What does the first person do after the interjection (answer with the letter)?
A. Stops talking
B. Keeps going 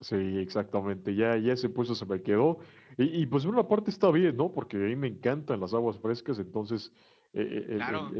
B